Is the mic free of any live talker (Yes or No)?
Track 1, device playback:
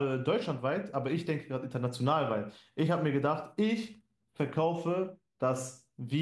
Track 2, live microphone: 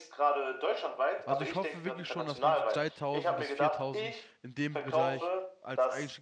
No